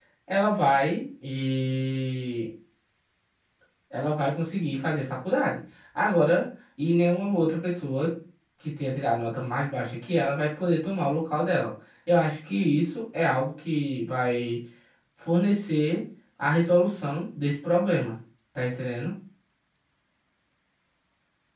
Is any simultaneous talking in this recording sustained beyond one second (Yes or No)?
No